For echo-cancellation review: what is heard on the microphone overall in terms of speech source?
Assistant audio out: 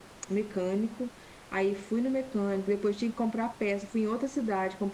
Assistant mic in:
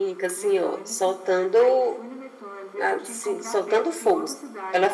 both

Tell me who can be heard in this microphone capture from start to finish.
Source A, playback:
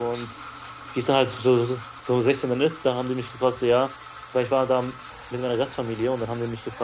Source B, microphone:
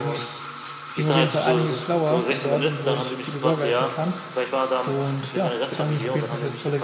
both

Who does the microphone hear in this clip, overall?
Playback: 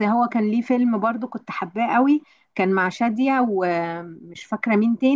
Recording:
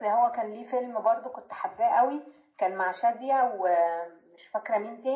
echo only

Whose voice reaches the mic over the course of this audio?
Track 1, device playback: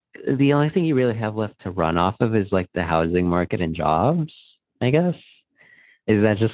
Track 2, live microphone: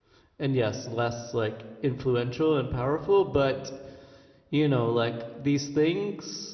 user only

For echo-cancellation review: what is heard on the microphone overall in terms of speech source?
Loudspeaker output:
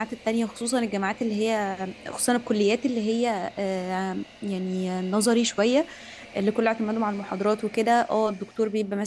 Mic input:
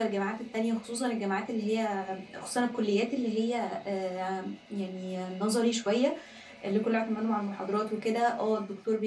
echo only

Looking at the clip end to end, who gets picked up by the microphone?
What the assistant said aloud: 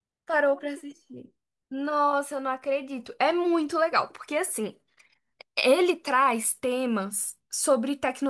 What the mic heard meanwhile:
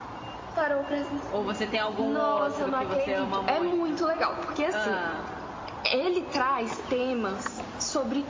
both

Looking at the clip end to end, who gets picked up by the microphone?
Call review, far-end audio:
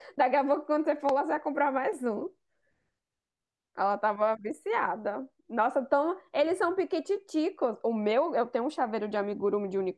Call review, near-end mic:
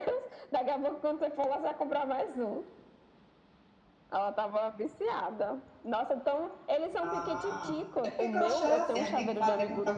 both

